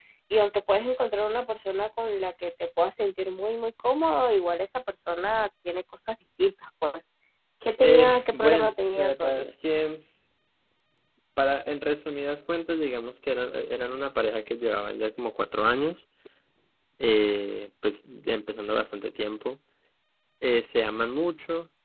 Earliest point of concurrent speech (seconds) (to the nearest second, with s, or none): 8 s